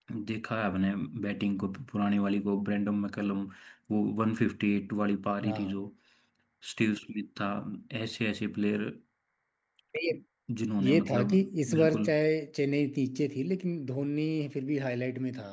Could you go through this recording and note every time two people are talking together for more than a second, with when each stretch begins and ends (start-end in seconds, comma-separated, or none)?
10.8-12.1